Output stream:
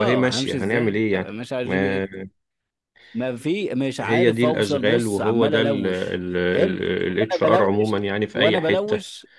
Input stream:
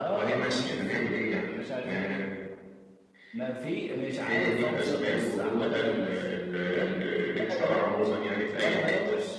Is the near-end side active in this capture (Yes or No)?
No